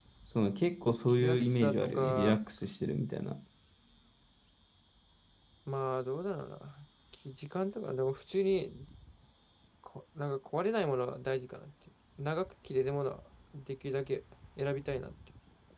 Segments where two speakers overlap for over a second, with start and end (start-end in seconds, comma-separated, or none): 1.1-2.4